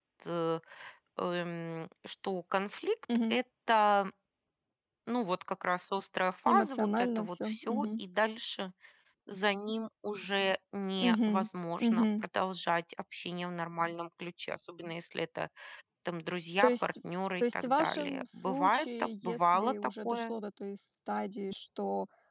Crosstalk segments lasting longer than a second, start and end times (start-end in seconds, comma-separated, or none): 6.5-8.0, 17.4-20.3